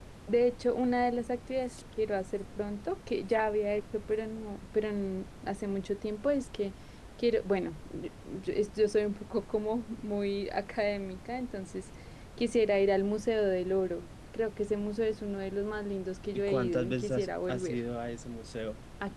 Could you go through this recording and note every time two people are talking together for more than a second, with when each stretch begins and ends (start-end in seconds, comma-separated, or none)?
16.5-17.8